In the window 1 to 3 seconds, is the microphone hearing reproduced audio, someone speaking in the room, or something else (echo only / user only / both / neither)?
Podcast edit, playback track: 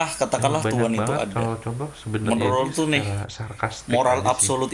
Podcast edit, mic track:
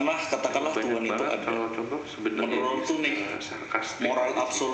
echo only